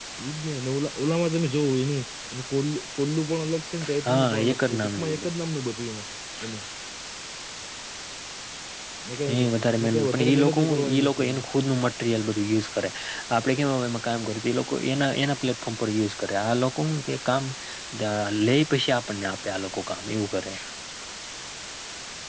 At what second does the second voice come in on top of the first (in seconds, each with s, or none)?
4.0 s